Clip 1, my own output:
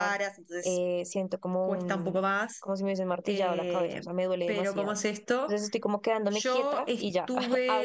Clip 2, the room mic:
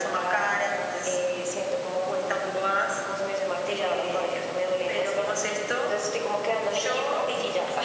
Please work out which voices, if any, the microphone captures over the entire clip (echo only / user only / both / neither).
echo only